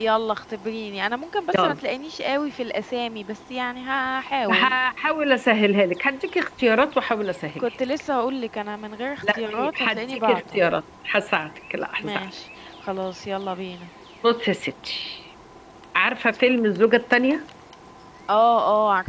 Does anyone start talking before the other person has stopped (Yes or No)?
Yes